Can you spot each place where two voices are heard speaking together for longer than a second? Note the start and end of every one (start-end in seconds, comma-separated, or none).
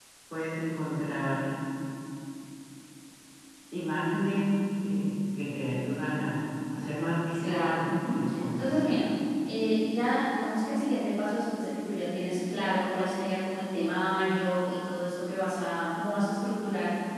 7.3-8.9